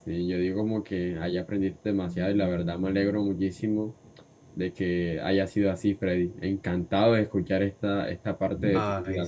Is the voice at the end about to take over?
Yes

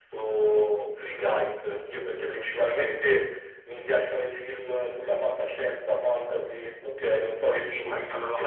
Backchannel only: No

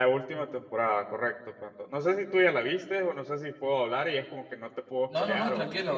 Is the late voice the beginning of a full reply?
Yes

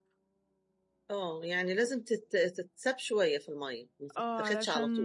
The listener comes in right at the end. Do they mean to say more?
Yes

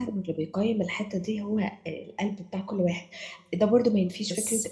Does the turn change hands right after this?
No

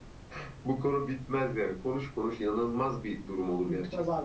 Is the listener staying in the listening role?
No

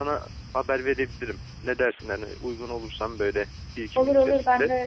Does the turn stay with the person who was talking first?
No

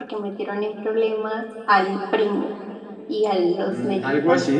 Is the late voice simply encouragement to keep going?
No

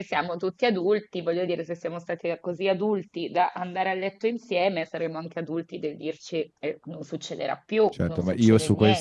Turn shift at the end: Yes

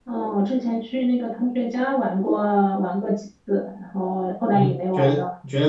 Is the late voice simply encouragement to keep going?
No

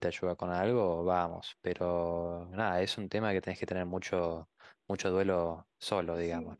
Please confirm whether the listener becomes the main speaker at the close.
Yes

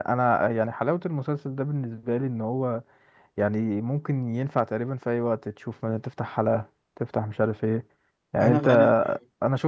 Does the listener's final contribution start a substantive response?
No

